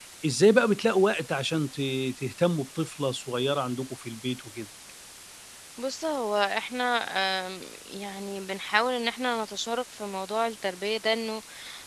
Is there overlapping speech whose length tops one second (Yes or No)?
No